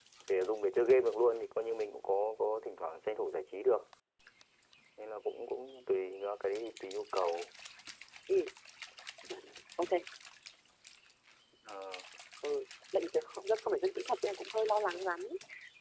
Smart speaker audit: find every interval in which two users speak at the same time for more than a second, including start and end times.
none

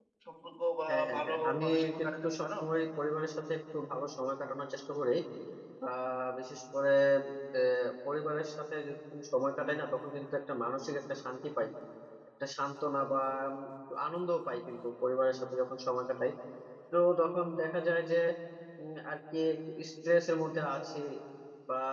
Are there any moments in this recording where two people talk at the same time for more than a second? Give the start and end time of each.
0.9-2.5

